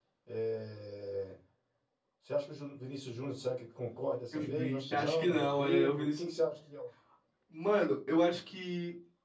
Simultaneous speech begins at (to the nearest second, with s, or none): 4 s